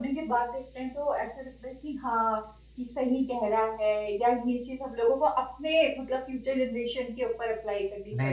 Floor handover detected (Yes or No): Yes